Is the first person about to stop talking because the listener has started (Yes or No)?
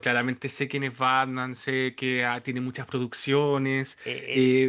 Yes